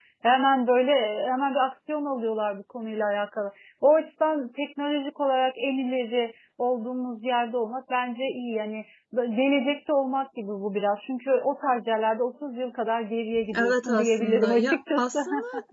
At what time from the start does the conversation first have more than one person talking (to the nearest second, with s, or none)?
13 s